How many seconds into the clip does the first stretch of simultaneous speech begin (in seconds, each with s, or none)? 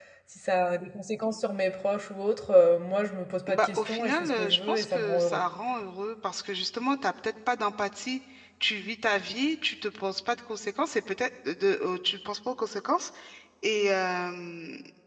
3.5 s